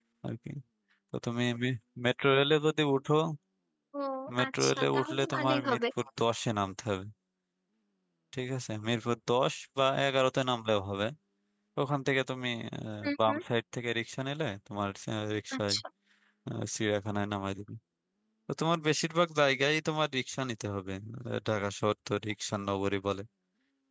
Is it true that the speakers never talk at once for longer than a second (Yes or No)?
No